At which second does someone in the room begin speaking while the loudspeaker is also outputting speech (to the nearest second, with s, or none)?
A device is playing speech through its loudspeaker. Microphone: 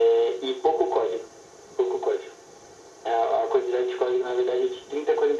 none